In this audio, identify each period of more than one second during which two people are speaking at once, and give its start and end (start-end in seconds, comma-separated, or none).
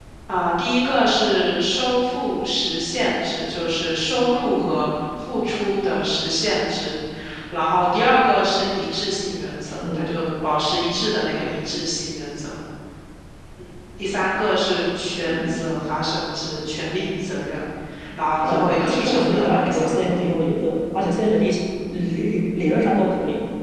18.4-20.0